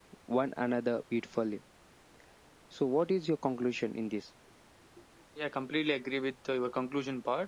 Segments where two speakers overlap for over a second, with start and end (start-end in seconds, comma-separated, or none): none